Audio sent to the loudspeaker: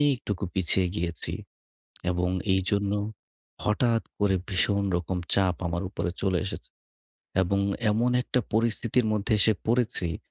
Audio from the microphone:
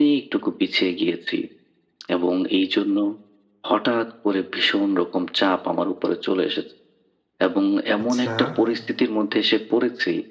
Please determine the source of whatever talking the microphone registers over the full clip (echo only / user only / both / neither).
both